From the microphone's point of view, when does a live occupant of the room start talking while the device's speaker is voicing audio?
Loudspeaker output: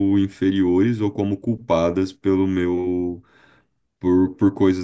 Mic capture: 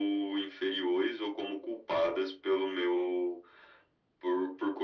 none

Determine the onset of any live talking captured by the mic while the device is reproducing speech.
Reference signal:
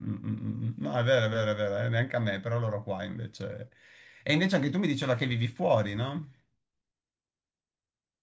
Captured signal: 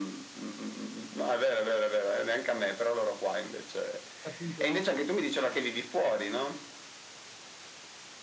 4.2 s

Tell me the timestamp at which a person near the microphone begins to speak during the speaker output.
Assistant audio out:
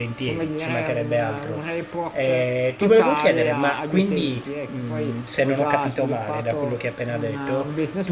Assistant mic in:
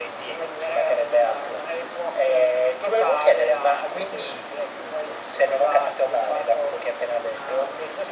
none

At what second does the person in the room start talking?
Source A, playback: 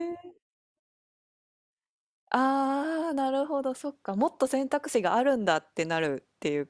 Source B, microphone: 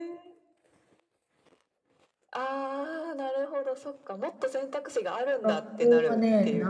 5.4 s

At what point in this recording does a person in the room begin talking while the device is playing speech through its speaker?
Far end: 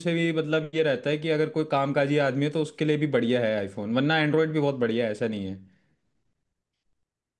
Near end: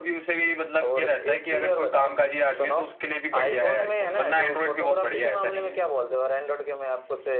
0.8 s

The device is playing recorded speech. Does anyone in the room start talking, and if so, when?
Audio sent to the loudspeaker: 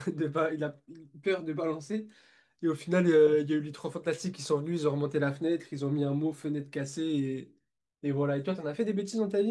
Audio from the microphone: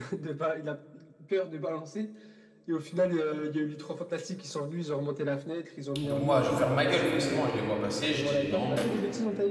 6.0 s

